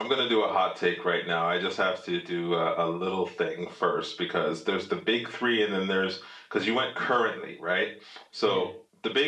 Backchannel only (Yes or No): Yes